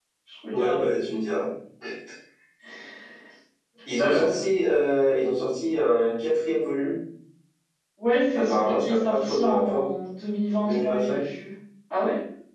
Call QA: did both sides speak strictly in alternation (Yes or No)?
No